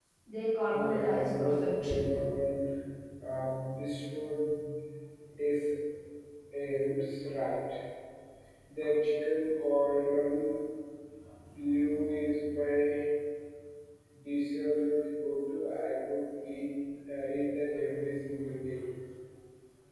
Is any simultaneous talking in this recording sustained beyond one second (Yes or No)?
Yes